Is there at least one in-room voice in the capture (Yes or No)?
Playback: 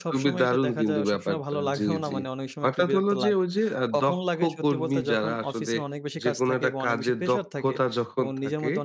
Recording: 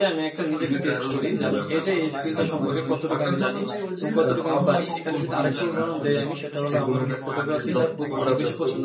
Yes